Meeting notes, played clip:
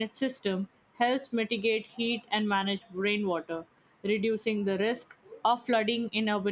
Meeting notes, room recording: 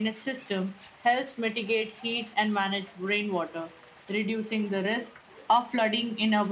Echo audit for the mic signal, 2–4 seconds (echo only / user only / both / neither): echo only